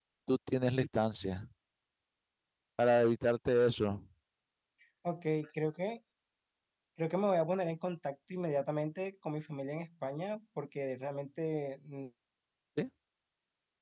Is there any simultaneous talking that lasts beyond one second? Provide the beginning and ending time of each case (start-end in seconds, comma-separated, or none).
none